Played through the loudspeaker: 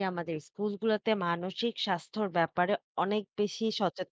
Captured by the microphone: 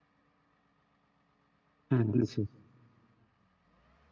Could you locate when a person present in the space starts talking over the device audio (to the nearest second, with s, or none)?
2 s